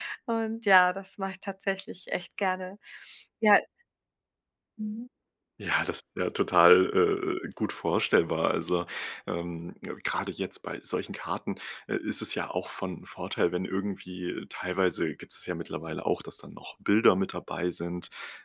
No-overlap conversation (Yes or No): Yes